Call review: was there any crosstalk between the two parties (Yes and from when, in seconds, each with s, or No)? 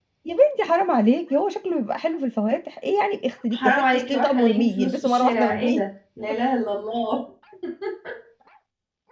Yes, from 3.5 s